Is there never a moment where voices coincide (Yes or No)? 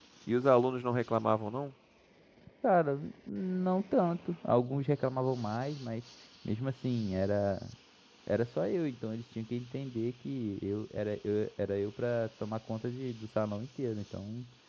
Yes